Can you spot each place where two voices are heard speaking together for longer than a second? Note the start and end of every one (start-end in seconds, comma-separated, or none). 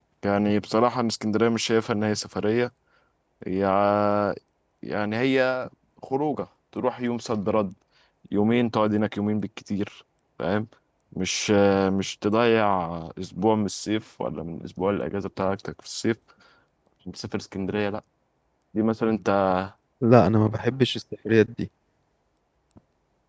none